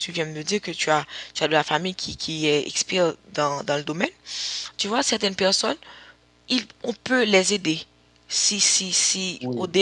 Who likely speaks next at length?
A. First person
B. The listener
A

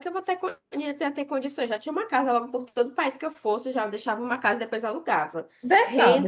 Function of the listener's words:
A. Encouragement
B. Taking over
B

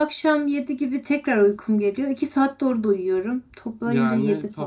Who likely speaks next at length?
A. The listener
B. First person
A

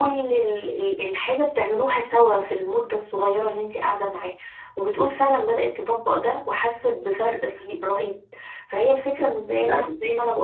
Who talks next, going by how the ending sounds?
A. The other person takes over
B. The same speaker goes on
B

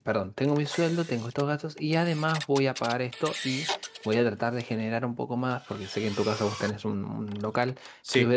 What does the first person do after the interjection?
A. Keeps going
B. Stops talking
A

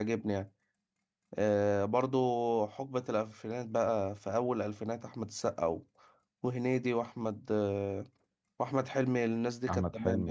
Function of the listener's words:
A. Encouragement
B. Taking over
B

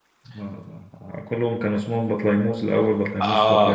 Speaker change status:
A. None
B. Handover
B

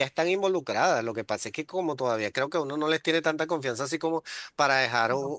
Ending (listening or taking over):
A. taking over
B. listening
B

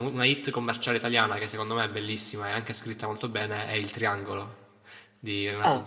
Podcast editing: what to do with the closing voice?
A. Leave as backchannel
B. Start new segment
B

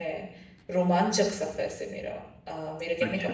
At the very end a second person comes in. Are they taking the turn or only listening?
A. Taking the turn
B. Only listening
A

